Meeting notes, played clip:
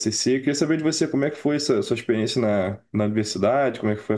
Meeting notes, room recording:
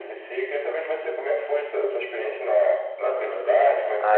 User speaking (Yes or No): Yes